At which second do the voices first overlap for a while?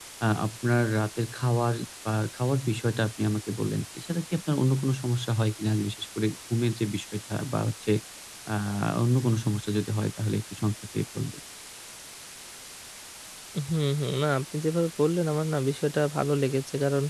none

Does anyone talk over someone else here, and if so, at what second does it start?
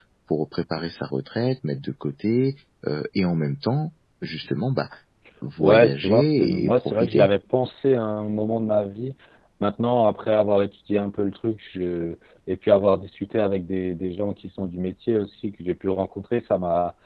5.6 s

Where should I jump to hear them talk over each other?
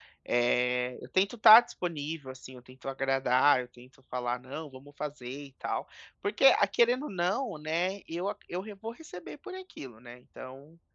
none

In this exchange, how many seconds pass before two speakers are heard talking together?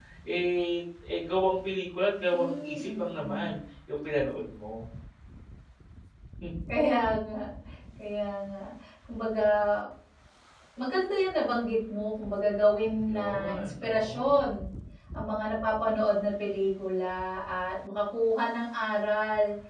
2.3 s

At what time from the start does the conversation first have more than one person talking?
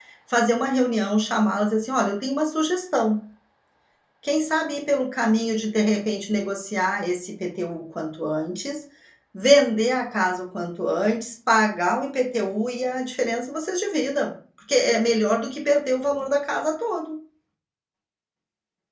none

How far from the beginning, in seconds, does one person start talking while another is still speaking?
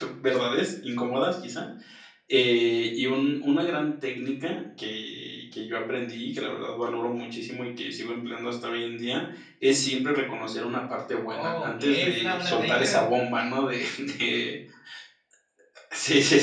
11.2 s

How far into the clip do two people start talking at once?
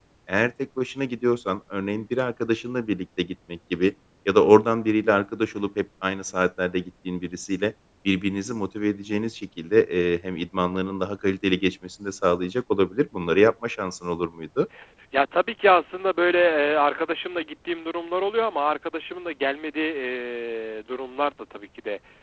none

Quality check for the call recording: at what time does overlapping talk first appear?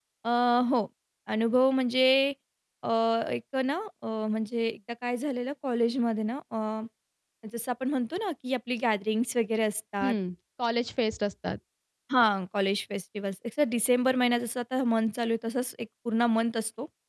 none

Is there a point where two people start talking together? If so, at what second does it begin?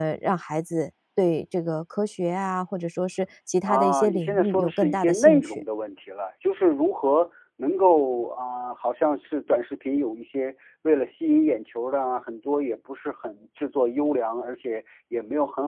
3.6 s

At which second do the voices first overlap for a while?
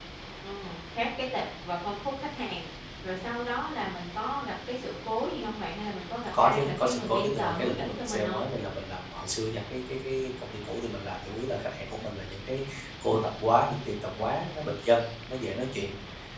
6.3 s

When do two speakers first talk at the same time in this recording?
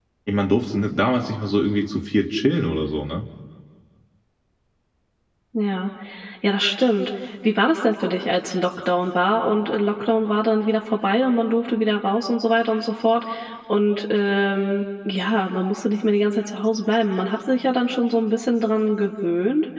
none

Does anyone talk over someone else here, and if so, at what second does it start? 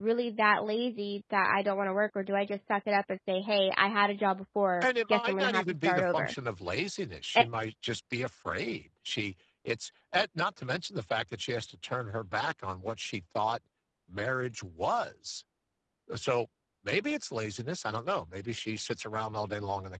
4.8 s

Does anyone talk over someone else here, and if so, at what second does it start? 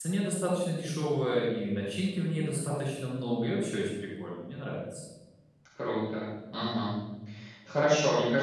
none

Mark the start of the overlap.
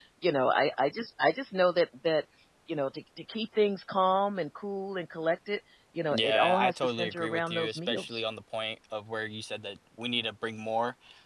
6.1 s

